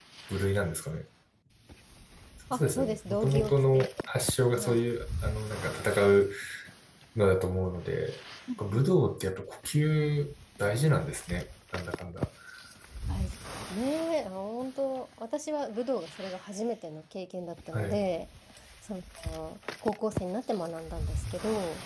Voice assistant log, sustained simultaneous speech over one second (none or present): present